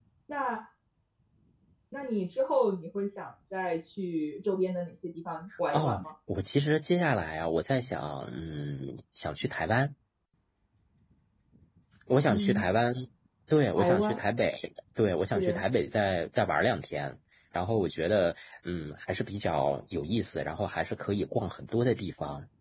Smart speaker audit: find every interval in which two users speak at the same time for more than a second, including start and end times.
none

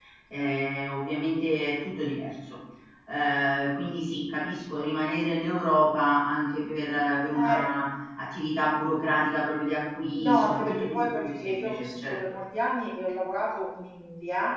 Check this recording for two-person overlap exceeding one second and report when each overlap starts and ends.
10.2-12.2

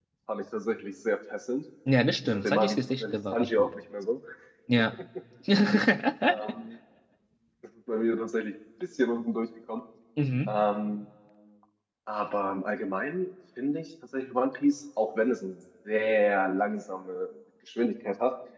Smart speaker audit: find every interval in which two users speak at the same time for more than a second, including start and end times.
2.3-3.7

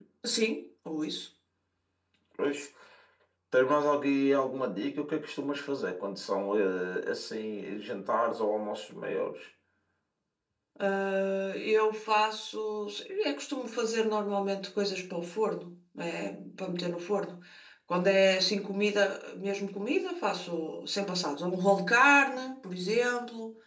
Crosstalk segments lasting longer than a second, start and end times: none

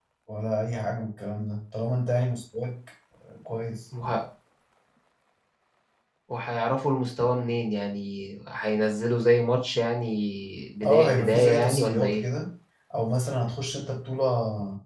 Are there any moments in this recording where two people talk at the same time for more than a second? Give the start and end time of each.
10.8-12.2

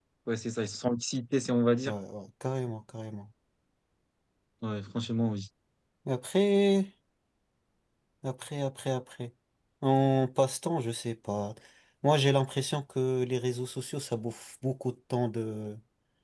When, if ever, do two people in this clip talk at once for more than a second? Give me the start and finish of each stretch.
none

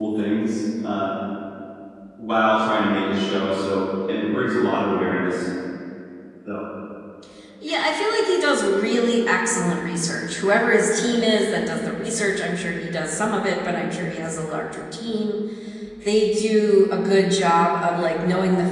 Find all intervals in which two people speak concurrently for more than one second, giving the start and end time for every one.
none

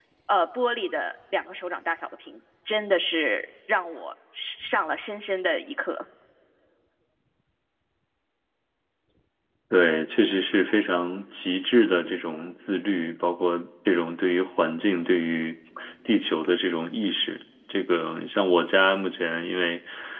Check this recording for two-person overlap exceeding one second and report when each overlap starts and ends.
none

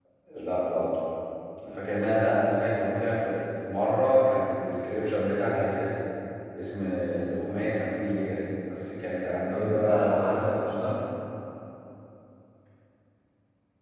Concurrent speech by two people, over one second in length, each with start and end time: 9.5-10.9

